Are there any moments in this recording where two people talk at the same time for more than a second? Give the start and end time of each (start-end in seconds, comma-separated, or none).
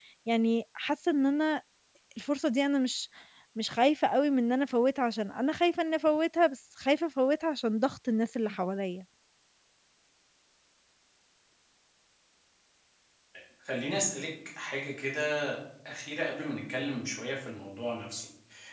none